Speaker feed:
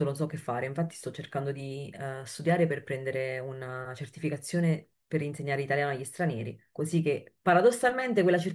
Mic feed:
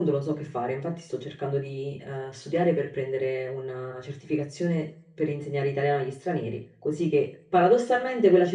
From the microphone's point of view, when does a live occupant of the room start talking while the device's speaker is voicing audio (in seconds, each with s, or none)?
none